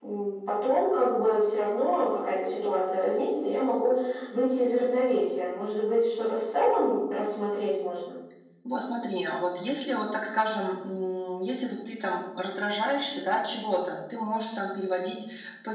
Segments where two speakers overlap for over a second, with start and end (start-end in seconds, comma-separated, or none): none